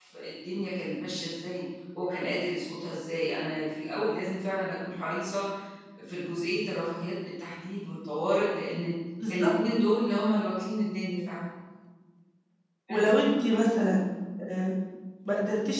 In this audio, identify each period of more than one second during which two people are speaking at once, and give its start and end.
none

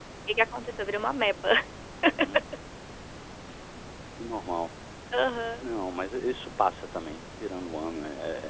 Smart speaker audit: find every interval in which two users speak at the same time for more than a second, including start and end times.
none

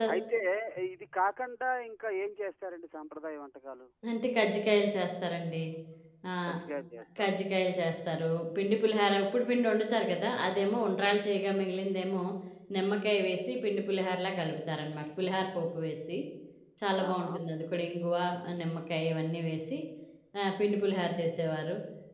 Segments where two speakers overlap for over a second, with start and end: none

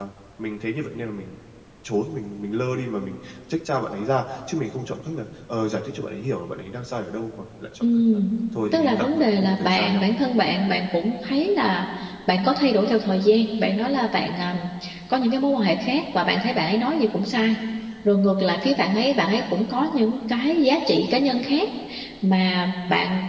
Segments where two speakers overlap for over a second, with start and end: 8.7-10.1

